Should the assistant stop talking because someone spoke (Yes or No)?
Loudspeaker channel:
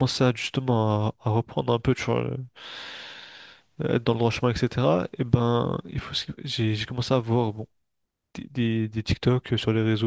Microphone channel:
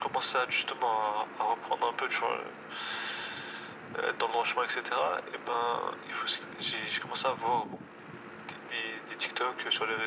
No